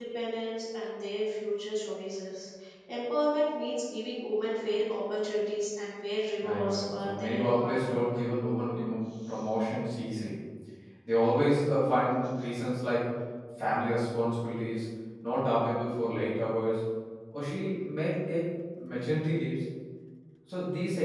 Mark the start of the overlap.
6.4 s

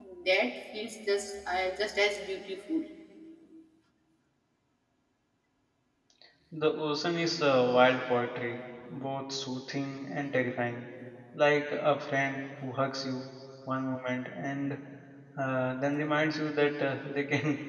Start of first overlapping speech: none

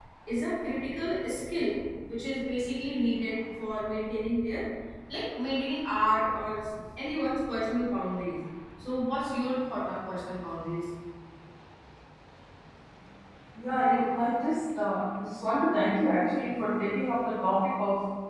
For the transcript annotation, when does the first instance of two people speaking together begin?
none

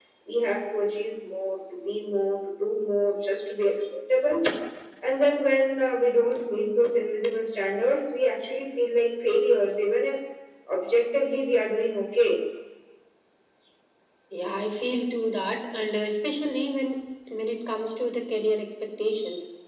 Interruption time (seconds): none

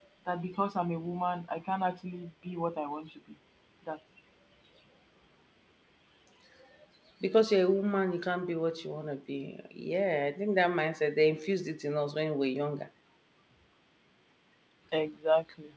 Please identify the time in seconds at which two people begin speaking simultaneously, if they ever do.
none

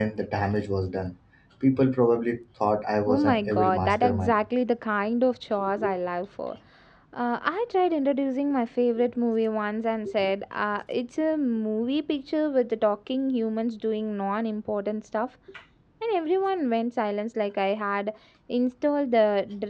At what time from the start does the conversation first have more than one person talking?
3.1 s

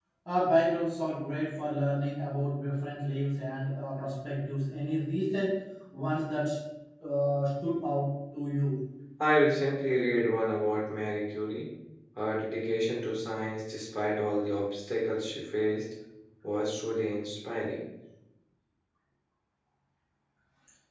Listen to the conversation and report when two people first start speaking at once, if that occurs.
none

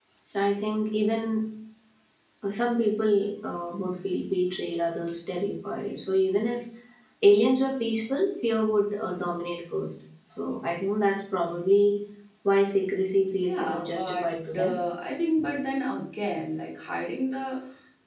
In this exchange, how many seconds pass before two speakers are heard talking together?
13.4 s

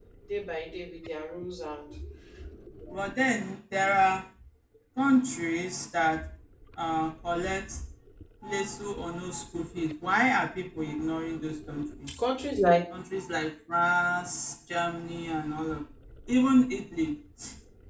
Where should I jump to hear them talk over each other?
none

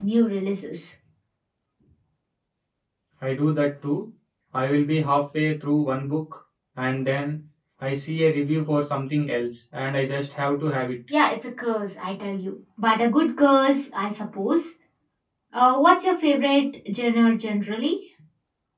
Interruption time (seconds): none

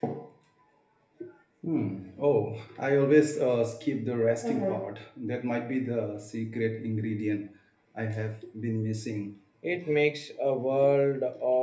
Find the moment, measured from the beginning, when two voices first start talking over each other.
none

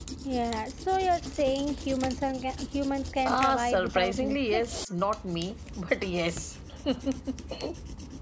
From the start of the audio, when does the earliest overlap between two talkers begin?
3.2 s

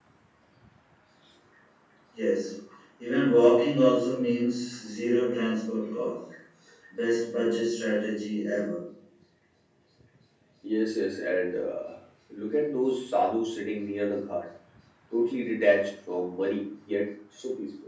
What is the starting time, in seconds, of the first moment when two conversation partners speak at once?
none

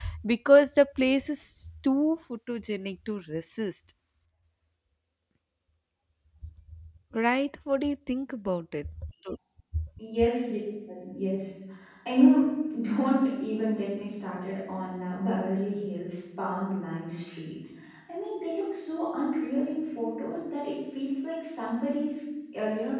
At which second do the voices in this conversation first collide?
none

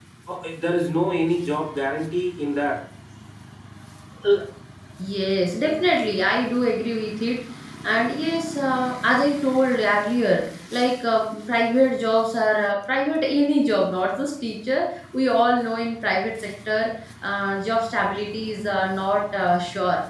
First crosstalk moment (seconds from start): none

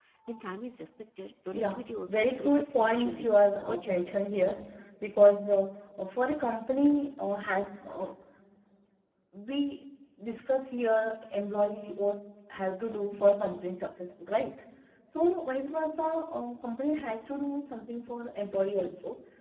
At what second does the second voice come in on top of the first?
1.5 s

